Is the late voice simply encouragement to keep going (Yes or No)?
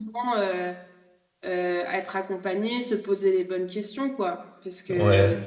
Yes